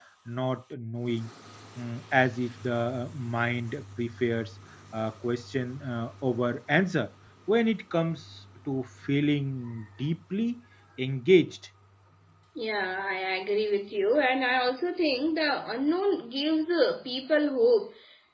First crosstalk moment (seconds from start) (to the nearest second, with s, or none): none